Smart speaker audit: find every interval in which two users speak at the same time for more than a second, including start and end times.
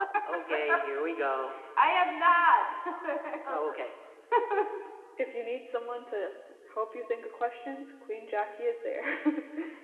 none

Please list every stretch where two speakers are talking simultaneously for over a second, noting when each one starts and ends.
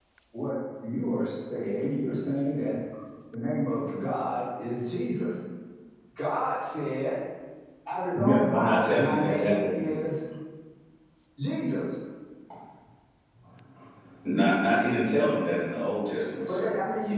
8.1-10.0

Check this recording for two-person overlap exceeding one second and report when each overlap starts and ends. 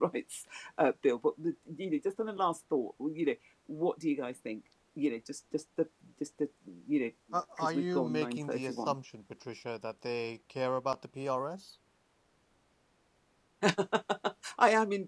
7.6-8.9

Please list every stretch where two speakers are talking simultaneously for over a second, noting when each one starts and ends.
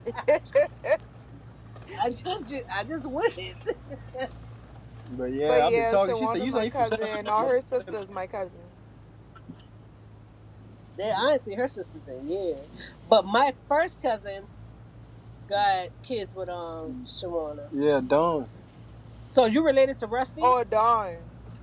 5.5-7.5

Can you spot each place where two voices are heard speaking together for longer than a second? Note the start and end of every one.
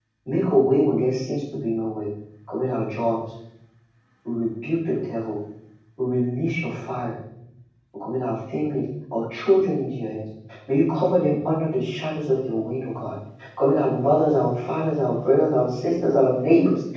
none

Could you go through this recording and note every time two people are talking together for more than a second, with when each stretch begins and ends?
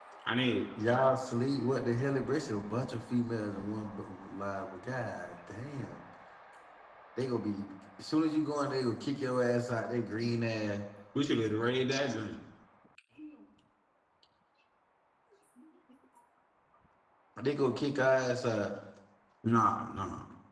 none

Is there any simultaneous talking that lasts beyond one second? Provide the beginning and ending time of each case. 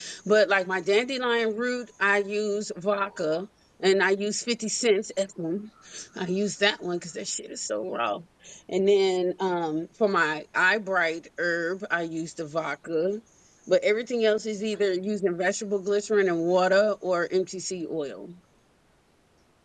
none

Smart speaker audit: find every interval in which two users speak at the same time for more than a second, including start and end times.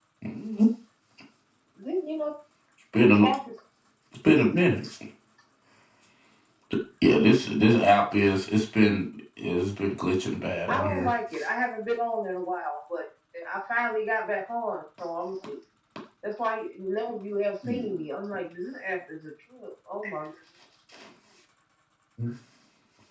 none

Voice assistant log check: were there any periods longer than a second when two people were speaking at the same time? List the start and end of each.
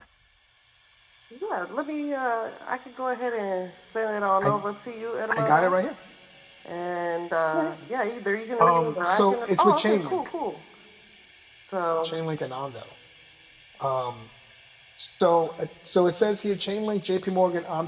8.6-10.2

